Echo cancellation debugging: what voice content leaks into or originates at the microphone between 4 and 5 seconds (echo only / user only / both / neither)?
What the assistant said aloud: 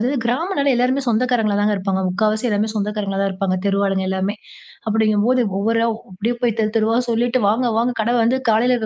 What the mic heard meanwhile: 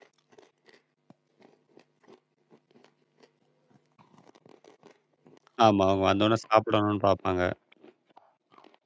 neither